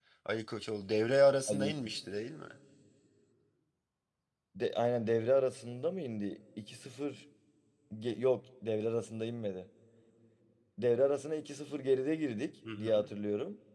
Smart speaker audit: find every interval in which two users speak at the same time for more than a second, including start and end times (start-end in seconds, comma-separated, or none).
none